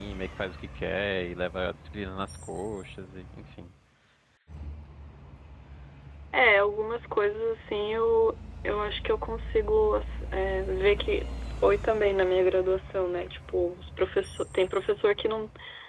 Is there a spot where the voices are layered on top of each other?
No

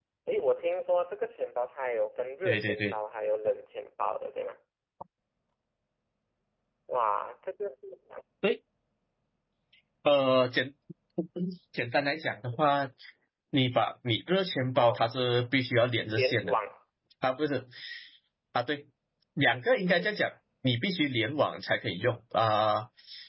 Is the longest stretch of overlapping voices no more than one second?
Yes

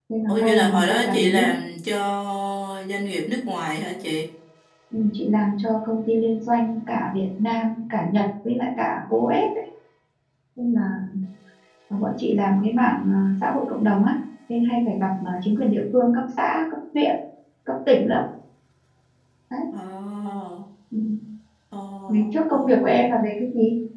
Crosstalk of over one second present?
Yes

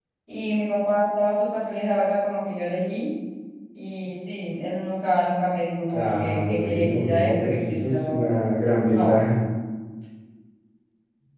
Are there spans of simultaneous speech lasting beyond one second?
Yes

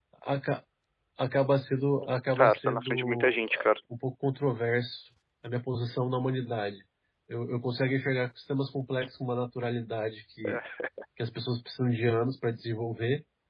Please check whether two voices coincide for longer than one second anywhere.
Yes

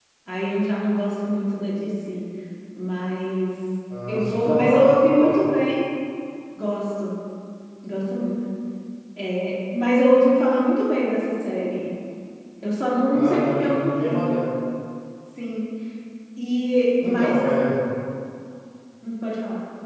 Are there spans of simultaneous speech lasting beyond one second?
Yes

